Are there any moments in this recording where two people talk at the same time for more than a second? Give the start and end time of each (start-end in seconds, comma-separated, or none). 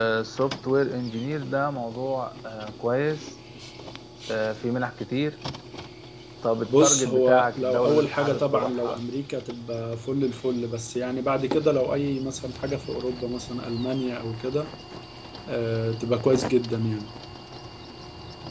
6.7-9.0